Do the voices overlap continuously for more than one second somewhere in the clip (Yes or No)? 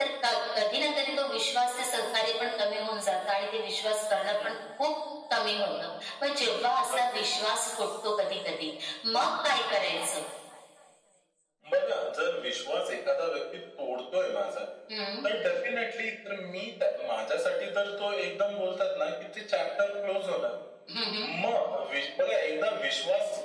No